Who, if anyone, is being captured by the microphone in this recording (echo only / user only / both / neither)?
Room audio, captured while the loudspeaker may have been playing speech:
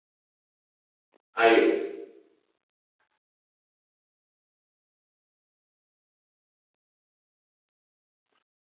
user only